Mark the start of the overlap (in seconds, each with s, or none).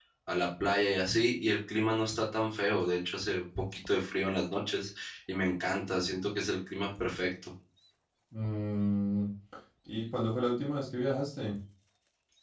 none